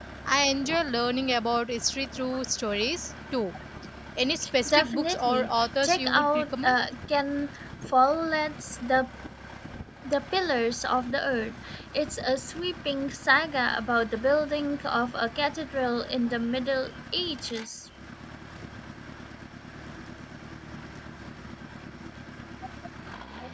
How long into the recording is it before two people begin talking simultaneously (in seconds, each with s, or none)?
4.7 s